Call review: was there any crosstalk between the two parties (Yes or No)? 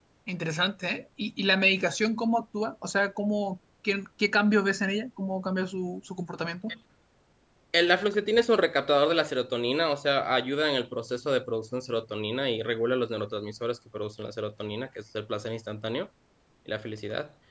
No